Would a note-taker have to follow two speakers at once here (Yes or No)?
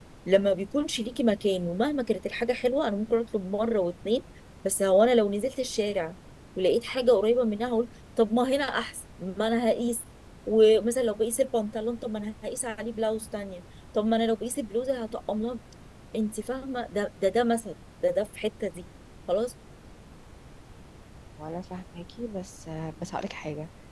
No